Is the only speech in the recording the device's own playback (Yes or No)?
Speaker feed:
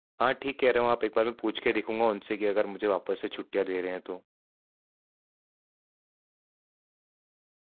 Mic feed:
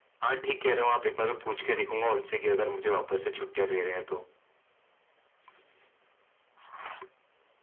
Yes